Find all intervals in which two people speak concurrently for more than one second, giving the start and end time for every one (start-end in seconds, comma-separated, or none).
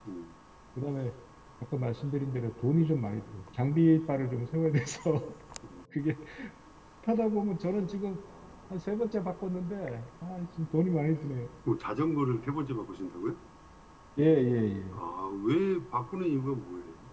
none